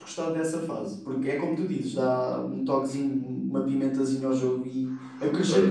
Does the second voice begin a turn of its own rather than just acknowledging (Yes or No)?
Yes